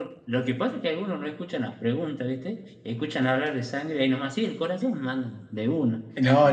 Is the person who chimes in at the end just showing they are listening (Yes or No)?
No